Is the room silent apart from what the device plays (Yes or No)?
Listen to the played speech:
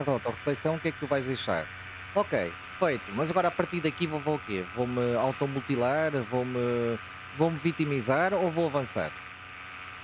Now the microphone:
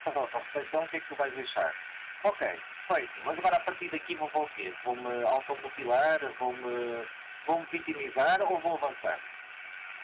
Yes